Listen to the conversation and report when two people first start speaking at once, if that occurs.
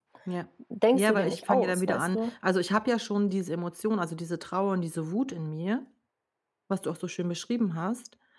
0.9 s

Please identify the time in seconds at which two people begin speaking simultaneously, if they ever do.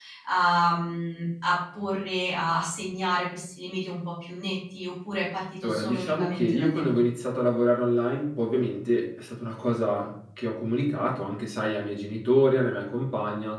5.6 s

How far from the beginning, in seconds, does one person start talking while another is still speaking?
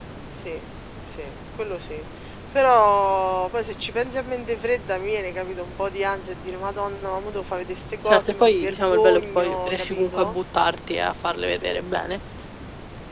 8.1 s

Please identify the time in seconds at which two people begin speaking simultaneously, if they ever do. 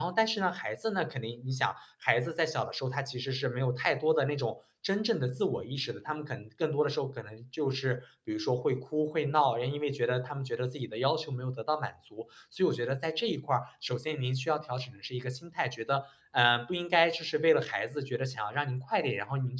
none

